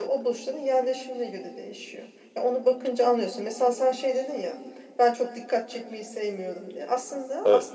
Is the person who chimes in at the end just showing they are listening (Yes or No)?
Yes